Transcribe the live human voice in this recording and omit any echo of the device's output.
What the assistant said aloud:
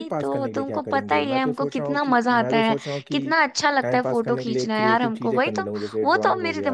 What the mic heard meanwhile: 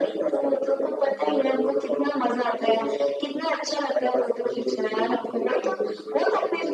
none

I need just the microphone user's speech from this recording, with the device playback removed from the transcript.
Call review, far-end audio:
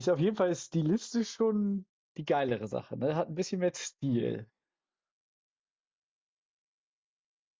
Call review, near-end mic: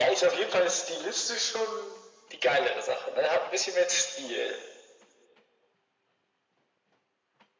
none

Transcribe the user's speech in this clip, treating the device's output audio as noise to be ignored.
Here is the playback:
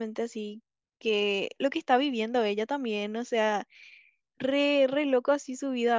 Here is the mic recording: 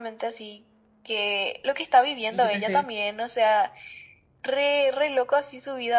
Y yo pensé,

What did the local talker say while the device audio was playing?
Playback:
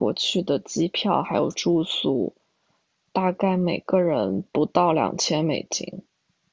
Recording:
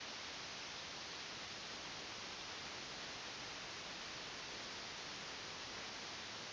none

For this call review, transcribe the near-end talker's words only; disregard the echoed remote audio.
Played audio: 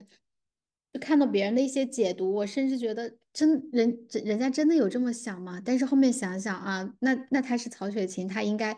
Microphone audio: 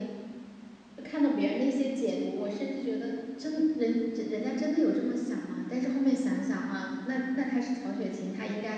none

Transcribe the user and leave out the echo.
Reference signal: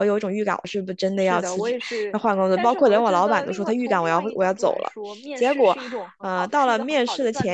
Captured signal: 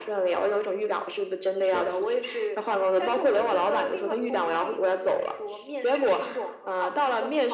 none

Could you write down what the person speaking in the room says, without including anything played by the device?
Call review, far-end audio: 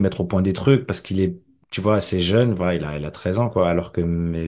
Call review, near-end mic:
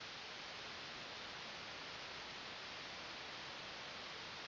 none

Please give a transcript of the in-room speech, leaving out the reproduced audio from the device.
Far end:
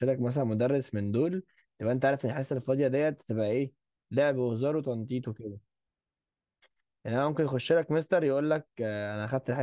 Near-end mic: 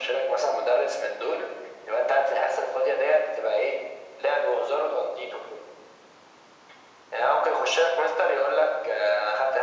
none

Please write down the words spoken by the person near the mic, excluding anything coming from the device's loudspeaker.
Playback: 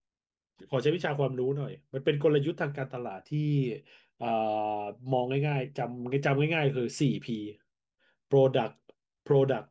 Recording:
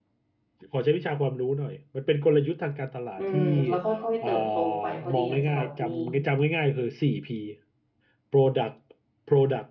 อืมแล้วค่อยๆเติบโตไปพอดีอยากจะแบบมี

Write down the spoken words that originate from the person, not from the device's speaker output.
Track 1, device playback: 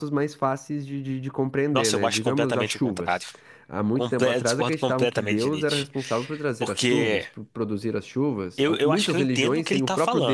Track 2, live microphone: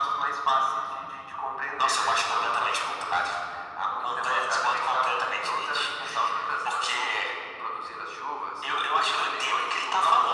none

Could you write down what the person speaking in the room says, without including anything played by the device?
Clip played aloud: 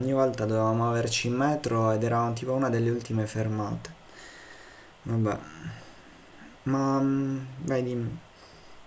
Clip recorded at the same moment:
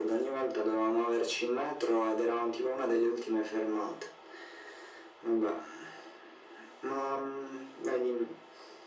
none

